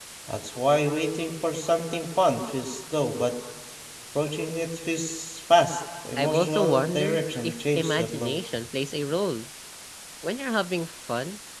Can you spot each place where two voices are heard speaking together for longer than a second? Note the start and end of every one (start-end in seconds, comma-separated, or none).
6.2-8.4